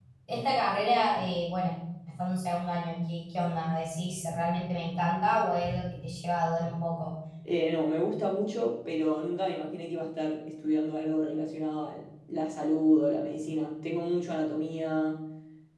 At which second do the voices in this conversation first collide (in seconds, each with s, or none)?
none